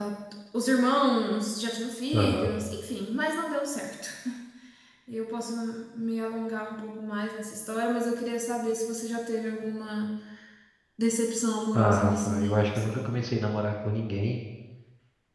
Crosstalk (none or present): present